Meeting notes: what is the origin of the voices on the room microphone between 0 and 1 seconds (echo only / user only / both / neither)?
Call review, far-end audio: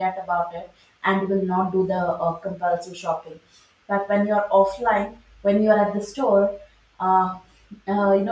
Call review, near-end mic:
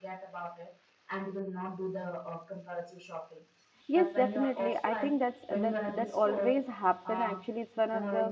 echo only